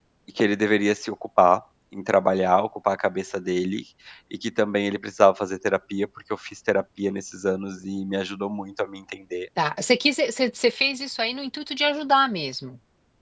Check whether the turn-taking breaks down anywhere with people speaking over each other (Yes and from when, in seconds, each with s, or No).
No